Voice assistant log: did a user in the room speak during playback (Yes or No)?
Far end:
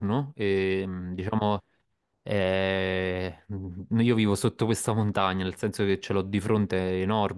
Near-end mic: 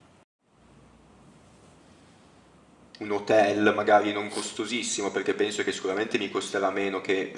Yes